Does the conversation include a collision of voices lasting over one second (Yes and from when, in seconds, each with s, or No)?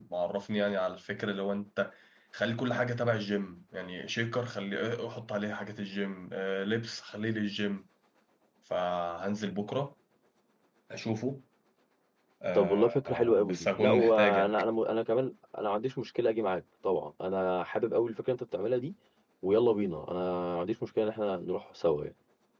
Yes, from 12.6 s